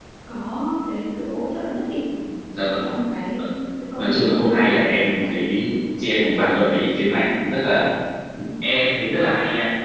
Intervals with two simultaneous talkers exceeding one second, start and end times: 4.0-5.3

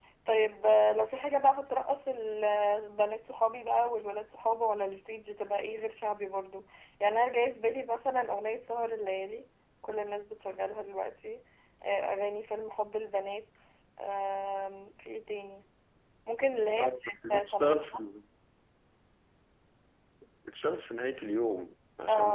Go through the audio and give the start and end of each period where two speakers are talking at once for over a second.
16.8-18.1

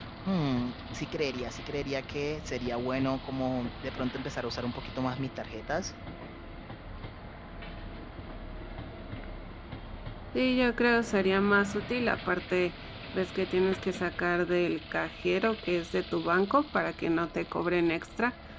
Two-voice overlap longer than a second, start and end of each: none

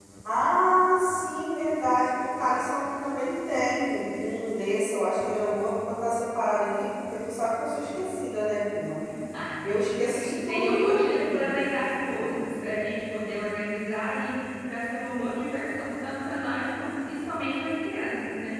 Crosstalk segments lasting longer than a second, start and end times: 10.1-11.5

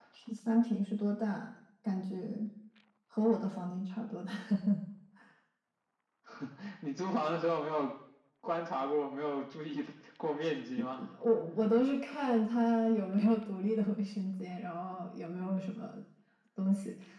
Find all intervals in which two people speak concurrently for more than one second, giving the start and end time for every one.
none

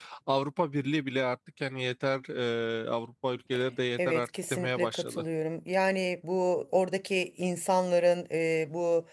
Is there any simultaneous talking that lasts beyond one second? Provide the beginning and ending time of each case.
4.0-5.2

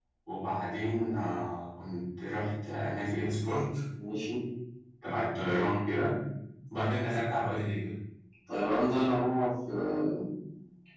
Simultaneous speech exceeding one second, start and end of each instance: none

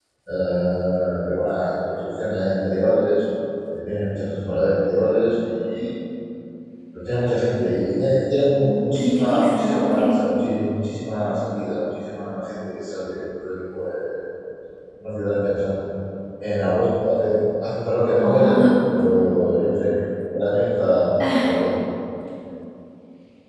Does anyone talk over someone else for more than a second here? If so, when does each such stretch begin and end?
8.6-10.3

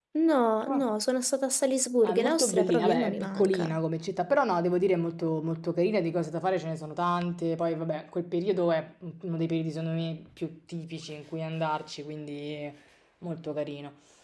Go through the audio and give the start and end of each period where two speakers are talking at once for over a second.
2.0-3.8

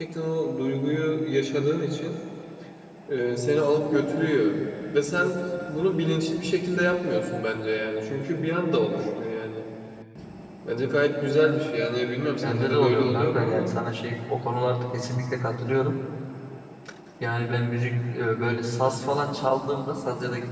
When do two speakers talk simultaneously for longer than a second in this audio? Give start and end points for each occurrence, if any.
12.4-13.7

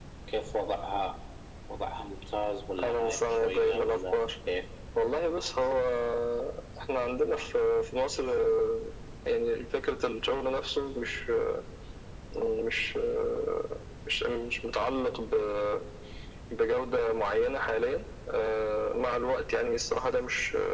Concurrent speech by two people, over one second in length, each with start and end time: 2.8-4.2

